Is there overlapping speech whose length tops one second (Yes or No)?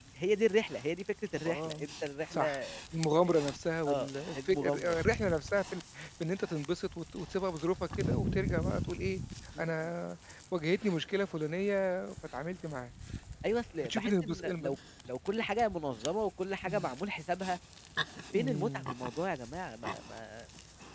Yes